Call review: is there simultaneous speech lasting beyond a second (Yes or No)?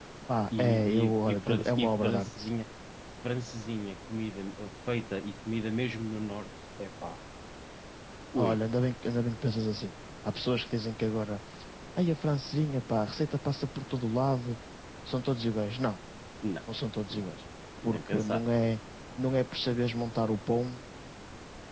Yes